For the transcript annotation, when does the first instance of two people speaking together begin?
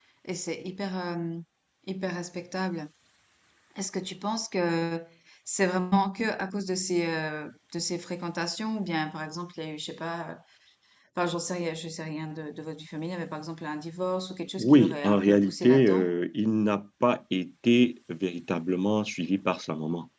14.6 s

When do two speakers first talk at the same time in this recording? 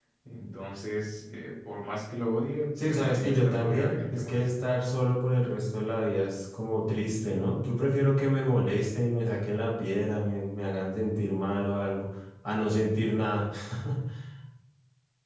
2.8 s

